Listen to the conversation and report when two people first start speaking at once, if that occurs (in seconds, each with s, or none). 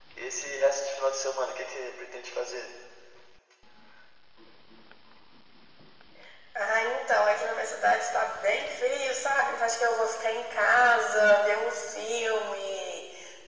none